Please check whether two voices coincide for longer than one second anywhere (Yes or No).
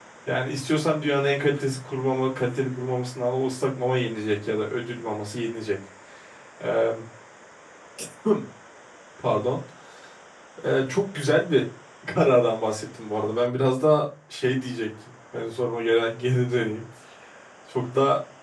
No